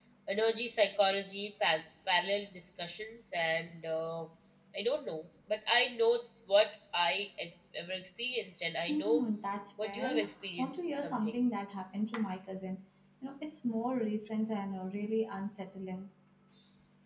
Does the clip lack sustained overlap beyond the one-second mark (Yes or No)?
No